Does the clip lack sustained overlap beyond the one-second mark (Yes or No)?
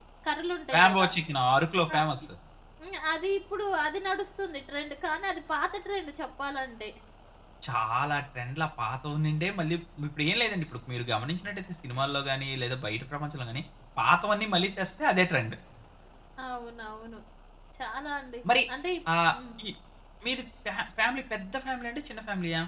Yes